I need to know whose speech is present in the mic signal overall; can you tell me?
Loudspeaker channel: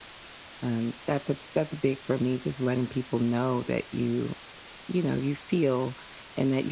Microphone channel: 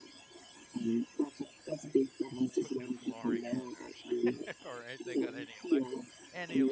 both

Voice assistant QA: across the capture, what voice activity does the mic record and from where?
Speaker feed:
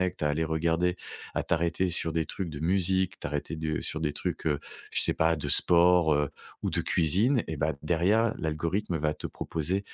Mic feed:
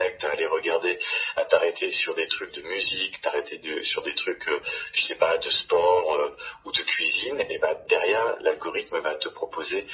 echo only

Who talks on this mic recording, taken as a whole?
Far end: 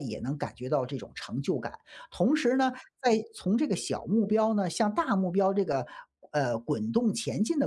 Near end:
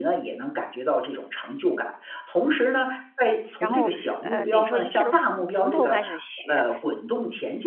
both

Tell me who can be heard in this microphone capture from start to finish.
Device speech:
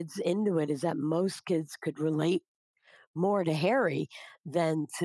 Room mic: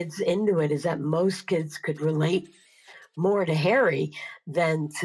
echo only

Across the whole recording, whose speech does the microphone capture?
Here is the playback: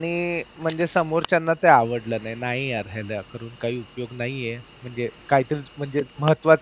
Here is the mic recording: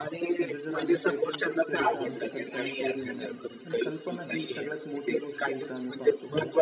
both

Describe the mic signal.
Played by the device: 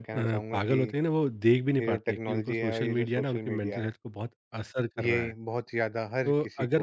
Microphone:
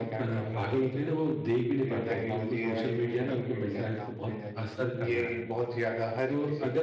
both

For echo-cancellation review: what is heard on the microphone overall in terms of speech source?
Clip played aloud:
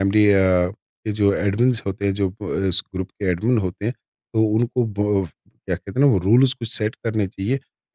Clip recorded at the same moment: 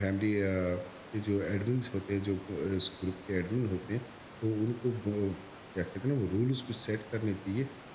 echo only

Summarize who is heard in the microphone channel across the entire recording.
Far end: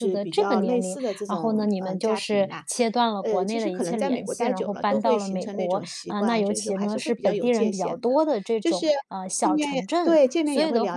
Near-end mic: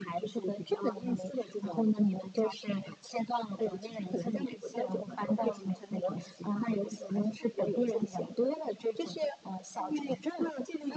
echo only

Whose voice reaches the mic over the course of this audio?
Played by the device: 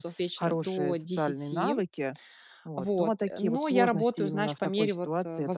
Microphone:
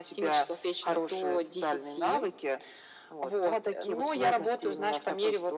echo only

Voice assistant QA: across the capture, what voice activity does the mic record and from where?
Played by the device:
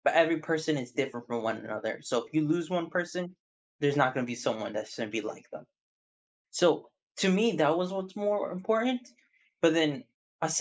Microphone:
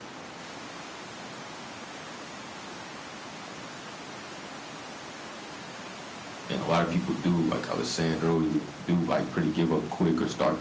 user only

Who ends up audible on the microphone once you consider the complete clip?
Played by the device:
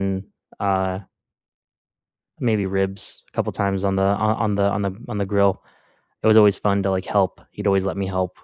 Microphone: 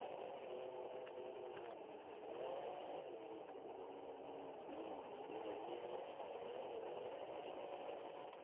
neither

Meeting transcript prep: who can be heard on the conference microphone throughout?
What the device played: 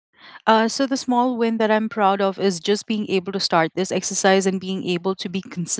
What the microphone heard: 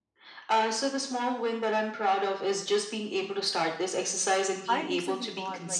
both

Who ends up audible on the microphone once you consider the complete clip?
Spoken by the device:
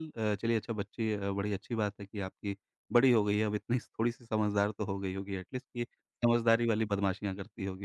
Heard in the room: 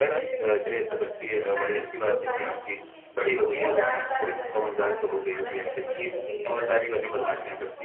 both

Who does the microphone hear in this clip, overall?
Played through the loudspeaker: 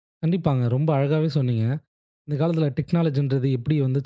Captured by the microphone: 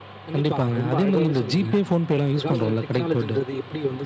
both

